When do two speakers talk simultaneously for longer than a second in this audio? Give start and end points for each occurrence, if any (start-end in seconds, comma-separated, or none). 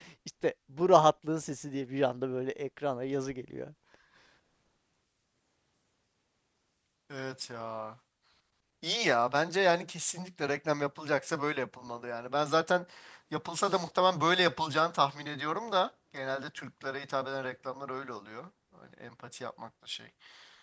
none